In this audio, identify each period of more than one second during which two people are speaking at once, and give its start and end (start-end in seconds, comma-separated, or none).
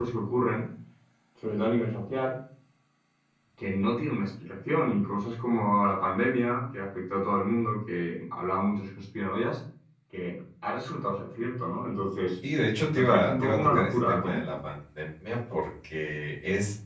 13.0-14.4